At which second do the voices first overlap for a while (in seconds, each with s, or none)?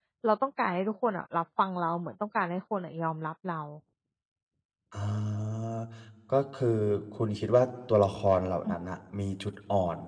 none